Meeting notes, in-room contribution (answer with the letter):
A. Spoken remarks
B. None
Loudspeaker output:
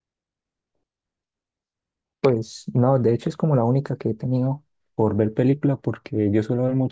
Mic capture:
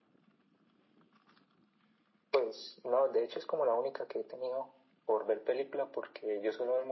B